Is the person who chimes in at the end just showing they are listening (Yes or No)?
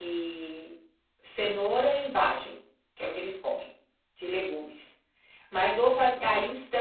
Yes